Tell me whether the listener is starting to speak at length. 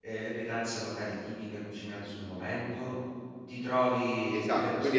Yes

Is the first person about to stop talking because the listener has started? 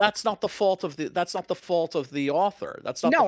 Yes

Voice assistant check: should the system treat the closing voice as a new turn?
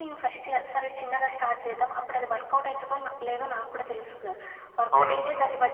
No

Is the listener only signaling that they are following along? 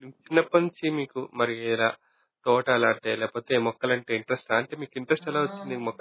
No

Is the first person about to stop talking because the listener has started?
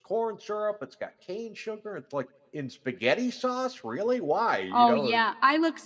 Yes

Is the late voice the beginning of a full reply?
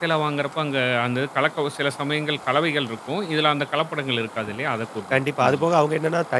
Yes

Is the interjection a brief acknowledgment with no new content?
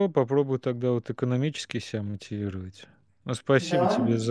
Yes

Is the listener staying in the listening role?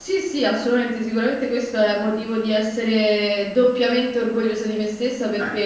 Yes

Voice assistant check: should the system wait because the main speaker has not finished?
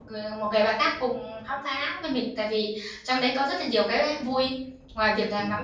Yes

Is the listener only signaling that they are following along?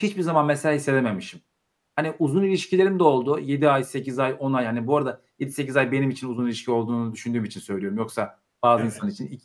Yes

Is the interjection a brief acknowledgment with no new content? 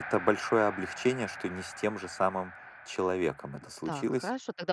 No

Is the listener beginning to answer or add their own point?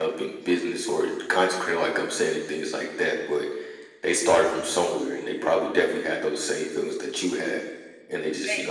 No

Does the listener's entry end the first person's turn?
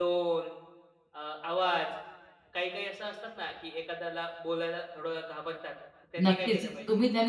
Yes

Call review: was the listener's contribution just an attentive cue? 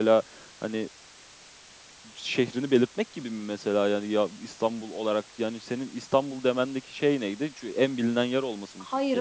No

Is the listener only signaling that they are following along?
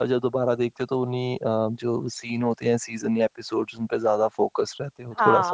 No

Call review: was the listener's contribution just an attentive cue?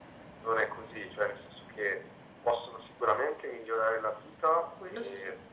Yes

